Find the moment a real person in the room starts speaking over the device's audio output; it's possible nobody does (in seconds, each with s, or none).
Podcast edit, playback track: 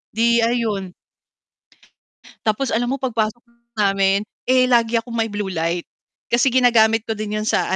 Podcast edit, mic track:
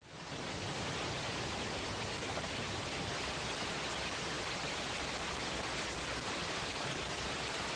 none